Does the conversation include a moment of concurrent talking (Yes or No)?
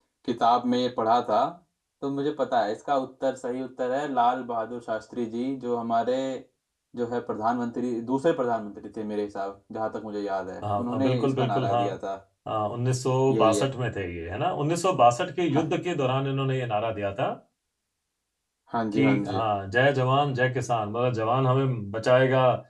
Yes